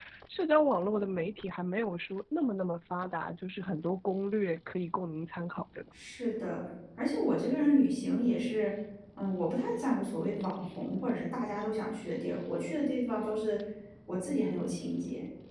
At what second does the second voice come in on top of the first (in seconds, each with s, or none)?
none